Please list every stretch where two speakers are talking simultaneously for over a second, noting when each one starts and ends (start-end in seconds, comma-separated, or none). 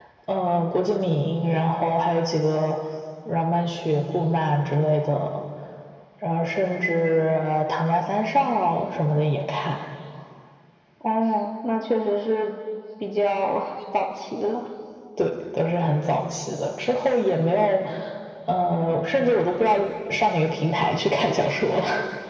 none